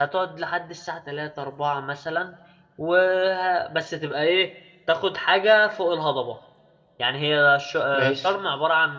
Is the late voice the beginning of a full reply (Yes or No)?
No